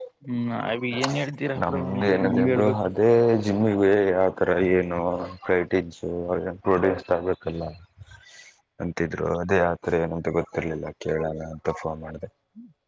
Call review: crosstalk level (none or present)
present